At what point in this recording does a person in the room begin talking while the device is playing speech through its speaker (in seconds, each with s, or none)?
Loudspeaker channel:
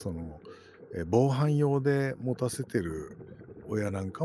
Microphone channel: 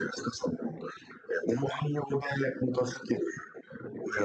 none